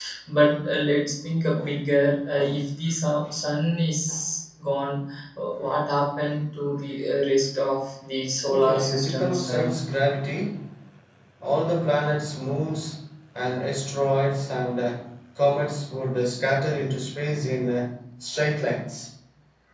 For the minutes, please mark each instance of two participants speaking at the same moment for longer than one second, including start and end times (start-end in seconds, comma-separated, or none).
8.5-9.8